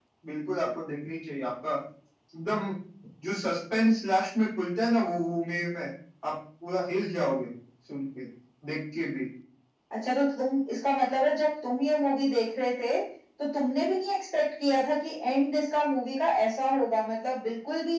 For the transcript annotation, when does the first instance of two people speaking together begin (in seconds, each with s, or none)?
none